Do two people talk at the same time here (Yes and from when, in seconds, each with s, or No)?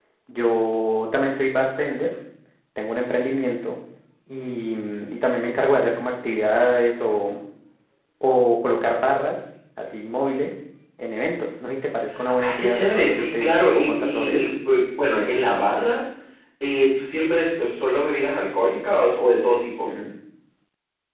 Yes, from 12.2 s